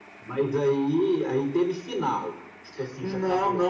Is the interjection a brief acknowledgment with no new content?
No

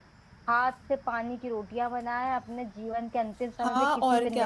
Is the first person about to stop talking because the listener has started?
Yes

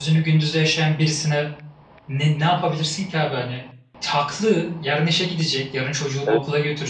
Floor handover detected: No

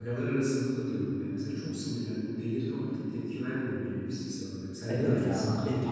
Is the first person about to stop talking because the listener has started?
Yes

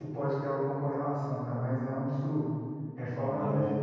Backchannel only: Yes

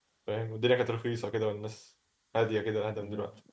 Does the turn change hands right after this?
Yes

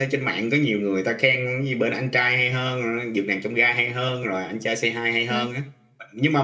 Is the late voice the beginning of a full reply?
No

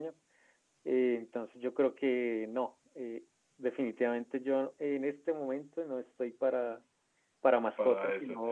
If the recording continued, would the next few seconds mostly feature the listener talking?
No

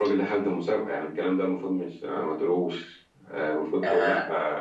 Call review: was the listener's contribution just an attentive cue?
Yes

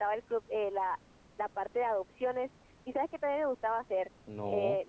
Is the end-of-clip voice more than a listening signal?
No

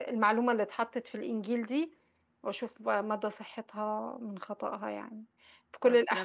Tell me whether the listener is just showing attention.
Yes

